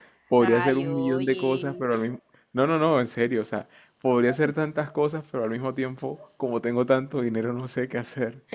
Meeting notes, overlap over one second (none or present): present